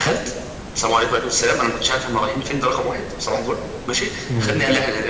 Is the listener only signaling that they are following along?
Yes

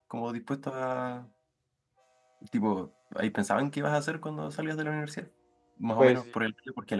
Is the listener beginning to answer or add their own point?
No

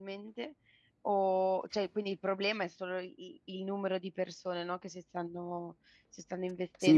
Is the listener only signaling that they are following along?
No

